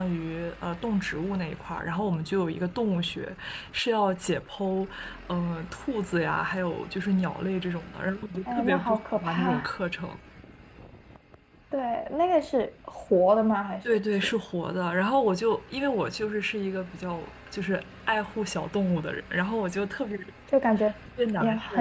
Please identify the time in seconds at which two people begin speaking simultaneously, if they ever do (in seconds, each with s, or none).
8.5 s